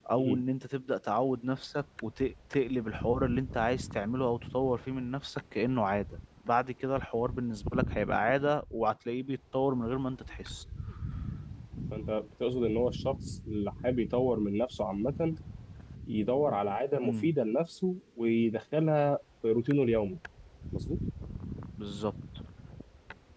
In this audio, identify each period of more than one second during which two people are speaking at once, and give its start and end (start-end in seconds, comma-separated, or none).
none